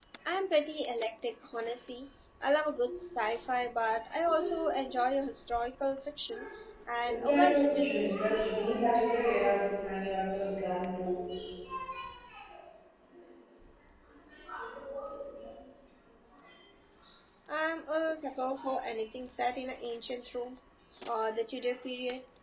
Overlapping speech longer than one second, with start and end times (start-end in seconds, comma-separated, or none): 7.0-8.4